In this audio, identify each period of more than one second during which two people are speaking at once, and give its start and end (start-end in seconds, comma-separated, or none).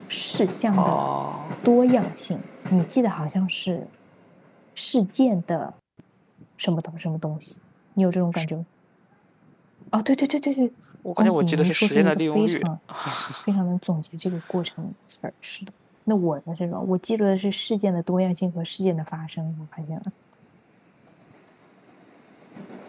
11.2-12.7